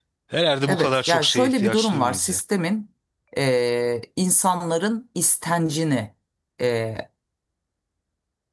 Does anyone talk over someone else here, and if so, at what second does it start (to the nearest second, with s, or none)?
1 s